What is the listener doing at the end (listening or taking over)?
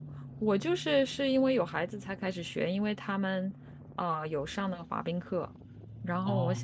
listening